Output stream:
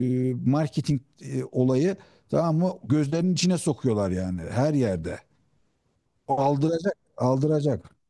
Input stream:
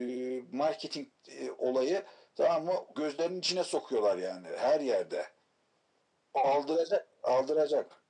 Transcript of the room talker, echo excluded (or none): none